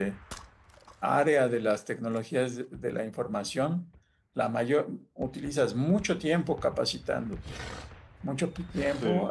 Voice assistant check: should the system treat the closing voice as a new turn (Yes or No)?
No